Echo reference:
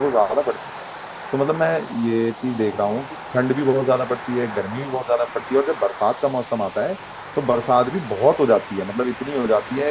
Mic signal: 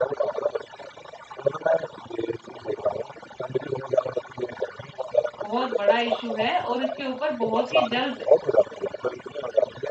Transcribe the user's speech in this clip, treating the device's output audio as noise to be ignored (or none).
बहुत बड़ा इशू है और इसके ऊपर बहुत ही जल्द